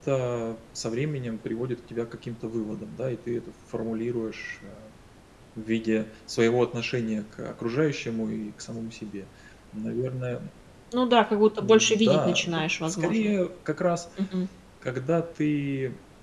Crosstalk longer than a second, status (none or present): present